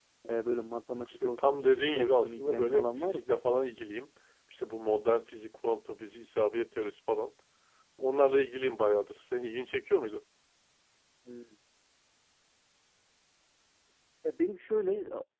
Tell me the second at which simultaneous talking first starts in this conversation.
1.1 s

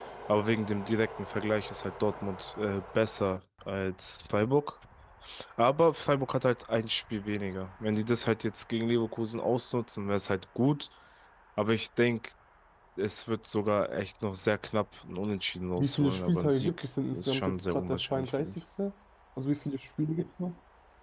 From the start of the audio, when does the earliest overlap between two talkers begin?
15.8 s

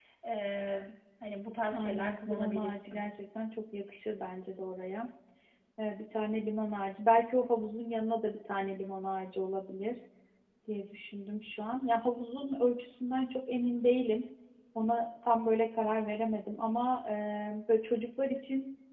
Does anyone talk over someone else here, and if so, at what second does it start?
1.7 s

